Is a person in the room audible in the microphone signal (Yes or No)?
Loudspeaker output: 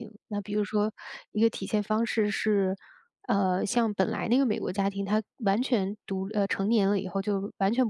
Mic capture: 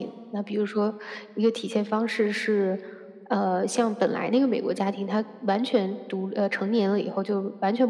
No